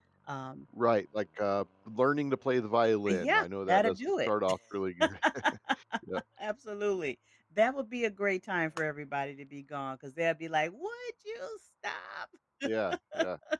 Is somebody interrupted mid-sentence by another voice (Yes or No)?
Yes